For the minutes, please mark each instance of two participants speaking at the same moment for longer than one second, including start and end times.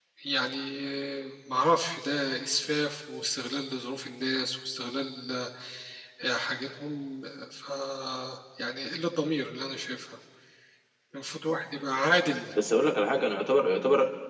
none

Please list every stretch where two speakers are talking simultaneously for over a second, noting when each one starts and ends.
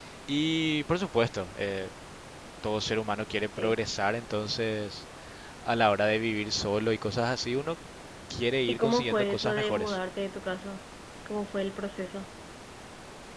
8.7-10.0

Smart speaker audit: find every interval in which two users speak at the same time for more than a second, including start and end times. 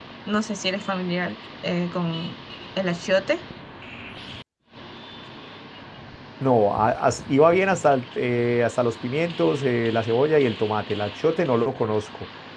none

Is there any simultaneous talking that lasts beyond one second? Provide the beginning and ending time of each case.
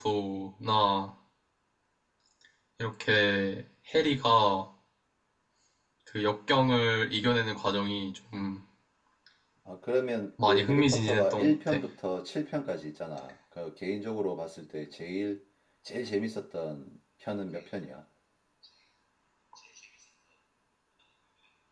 10.5-11.8

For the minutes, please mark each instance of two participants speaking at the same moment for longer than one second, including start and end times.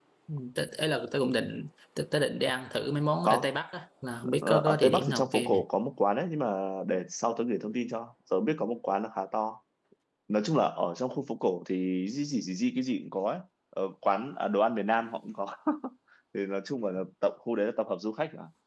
4.4-5.6

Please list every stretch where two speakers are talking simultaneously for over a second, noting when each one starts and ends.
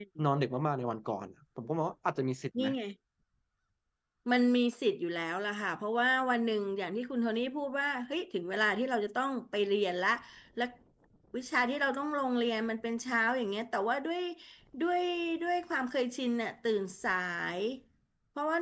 none

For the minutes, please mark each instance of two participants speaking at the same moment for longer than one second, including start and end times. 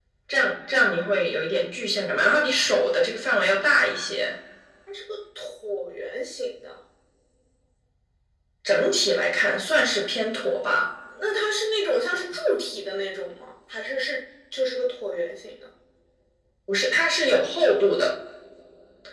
none

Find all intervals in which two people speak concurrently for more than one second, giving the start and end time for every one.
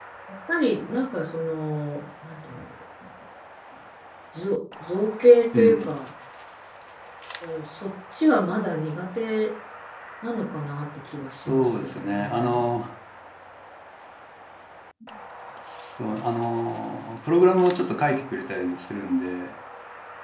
11.3-12.6

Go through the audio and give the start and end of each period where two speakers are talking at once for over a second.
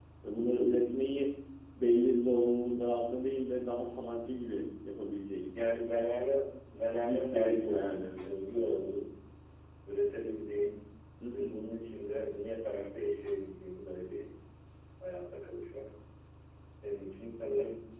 7.0-8.2

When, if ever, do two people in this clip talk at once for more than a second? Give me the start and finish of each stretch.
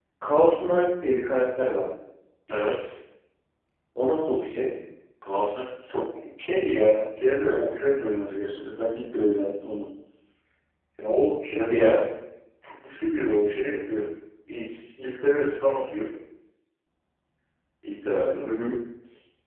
none

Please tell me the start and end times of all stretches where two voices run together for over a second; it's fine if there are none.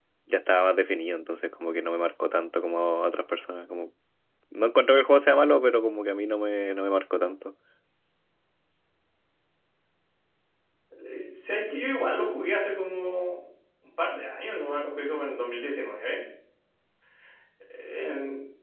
none

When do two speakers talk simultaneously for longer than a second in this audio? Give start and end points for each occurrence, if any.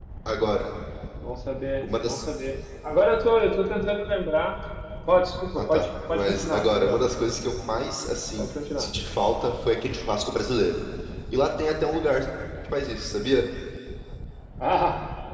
5.6-7.0

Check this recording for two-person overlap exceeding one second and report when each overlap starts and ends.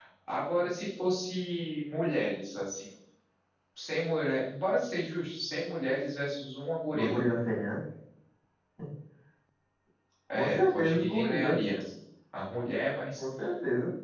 10.3-11.6

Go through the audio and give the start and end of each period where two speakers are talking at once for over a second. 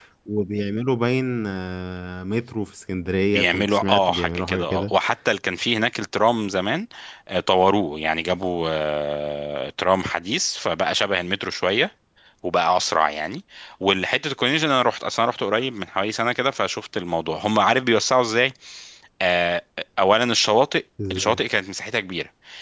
3.3-4.9

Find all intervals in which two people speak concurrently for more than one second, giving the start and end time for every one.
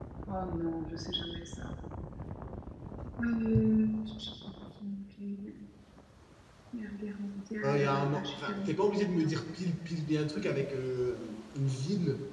7.6-9.4

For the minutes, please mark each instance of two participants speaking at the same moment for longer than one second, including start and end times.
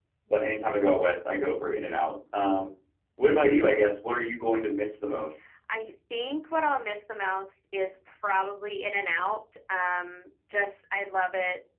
none

